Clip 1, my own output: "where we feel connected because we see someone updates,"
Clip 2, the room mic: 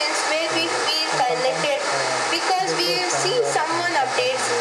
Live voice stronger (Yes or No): No